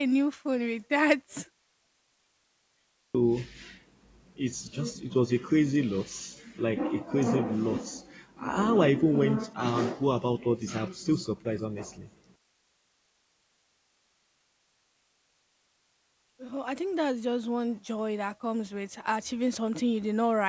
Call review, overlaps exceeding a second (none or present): none